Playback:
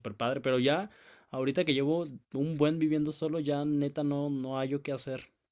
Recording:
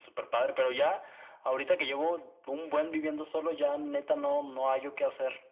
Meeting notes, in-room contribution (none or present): none